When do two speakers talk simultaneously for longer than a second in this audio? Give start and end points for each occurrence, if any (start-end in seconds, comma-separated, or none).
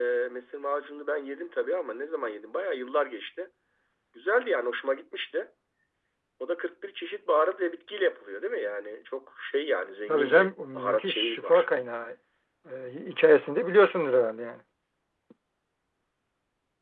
10.1-11.7